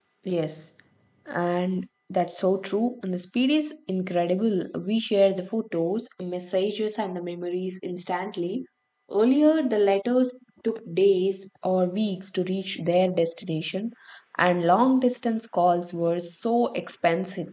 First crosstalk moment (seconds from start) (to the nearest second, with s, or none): none